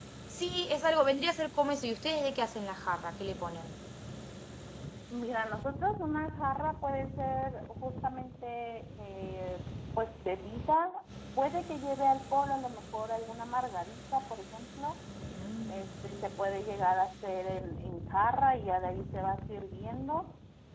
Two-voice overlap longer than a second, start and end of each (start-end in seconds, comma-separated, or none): none